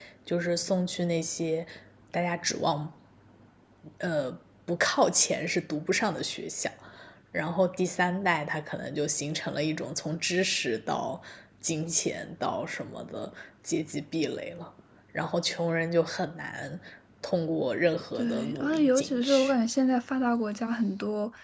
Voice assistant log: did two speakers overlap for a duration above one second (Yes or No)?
Yes